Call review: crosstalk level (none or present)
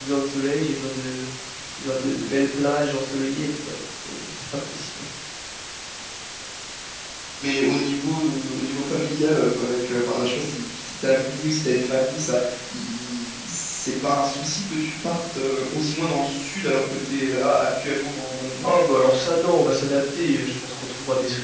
none